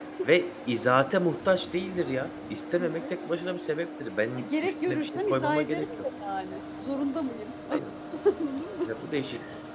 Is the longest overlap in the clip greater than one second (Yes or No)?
Yes